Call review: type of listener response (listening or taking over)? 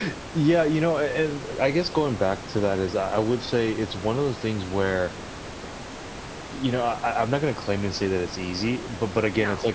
listening